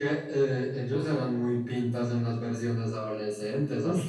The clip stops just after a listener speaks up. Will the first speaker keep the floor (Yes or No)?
No